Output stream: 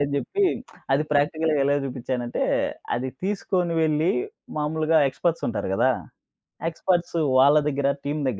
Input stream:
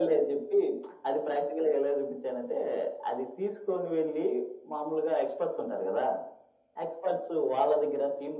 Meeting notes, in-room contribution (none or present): none